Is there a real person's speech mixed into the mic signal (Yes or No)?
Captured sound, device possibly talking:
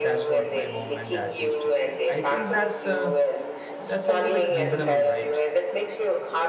Yes